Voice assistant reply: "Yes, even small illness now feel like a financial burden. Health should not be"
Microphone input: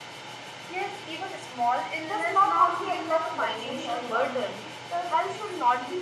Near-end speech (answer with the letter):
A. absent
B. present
B